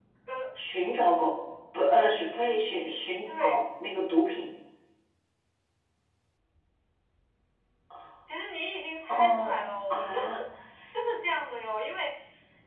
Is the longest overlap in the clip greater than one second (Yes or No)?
Yes